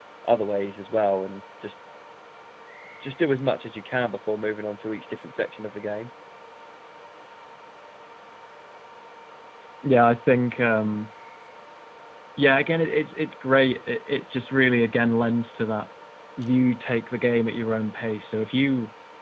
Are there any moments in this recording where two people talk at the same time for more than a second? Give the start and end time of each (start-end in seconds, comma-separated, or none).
none